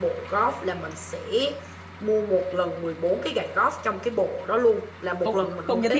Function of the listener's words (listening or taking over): taking over